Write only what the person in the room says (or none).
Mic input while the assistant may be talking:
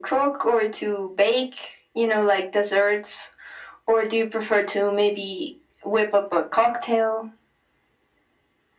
none